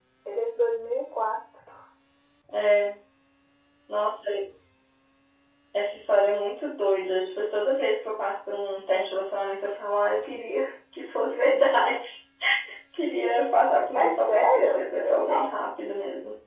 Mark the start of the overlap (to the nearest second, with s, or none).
14 s